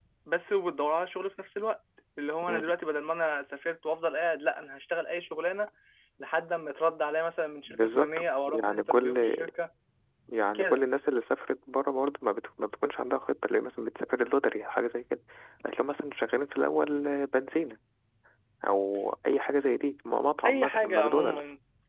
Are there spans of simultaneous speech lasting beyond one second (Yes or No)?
Yes